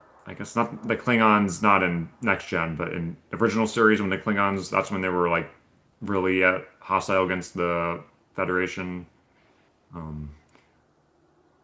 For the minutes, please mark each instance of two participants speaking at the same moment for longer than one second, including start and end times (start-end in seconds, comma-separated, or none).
none